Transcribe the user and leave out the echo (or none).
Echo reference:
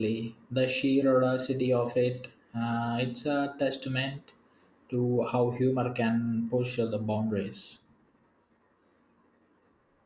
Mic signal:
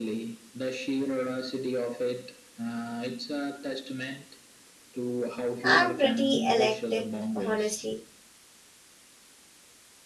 I'm pretty eclectic, honestly.